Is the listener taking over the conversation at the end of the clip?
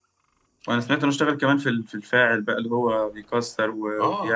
Yes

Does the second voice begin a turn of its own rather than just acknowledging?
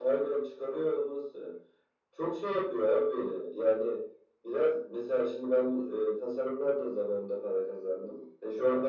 No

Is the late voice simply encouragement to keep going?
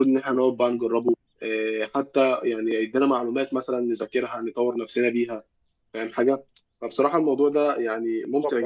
Yes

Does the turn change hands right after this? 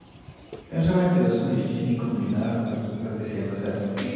Yes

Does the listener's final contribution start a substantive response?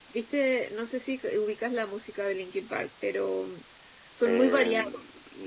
Yes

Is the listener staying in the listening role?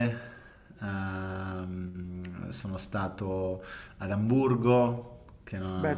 No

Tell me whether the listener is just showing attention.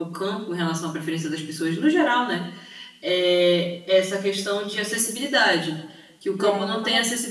Yes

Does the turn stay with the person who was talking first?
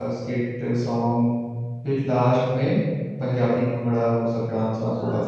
No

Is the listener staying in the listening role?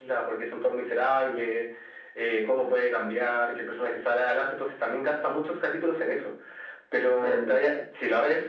Yes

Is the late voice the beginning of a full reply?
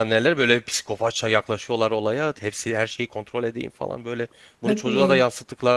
No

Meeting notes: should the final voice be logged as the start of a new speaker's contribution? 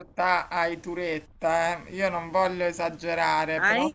No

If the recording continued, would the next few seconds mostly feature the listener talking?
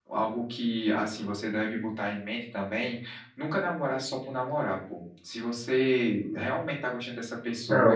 Yes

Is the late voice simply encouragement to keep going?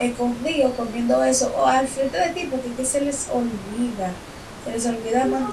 No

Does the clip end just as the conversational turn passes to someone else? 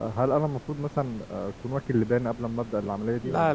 Yes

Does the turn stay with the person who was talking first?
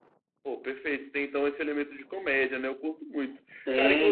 No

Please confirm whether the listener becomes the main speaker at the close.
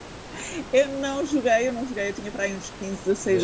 Yes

